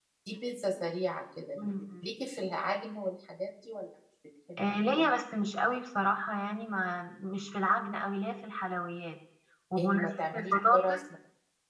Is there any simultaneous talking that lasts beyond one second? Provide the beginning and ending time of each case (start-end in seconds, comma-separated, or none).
9.8-11.0